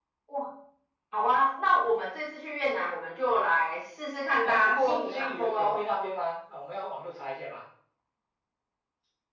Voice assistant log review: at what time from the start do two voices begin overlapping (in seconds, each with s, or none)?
4.4 s